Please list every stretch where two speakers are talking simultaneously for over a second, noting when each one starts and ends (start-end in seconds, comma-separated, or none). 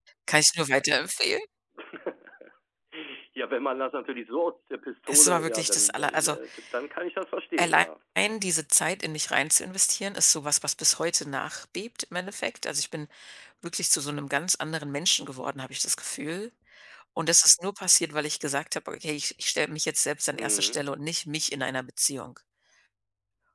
5.1-6.4